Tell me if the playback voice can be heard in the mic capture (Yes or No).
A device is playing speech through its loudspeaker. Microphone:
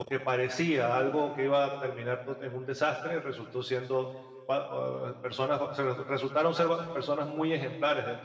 No